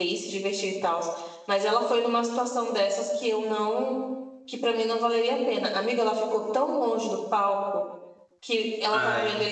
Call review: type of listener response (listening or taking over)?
listening